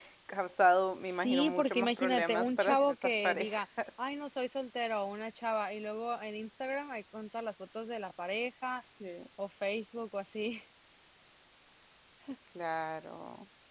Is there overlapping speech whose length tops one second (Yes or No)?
Yes